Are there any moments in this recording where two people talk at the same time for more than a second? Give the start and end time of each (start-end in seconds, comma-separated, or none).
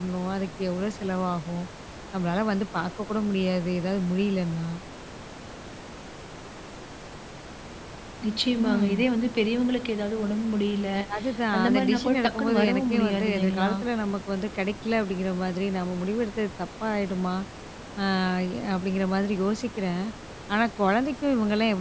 11.6-13.7